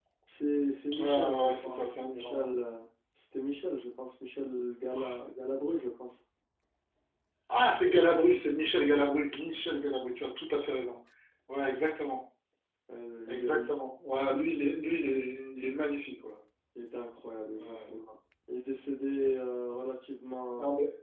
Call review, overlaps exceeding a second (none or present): present